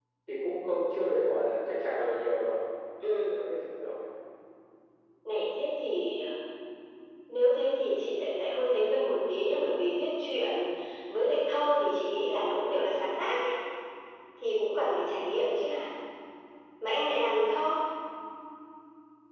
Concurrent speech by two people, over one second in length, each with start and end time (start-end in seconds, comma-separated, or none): none